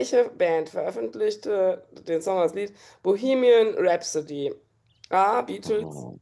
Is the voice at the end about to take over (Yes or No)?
No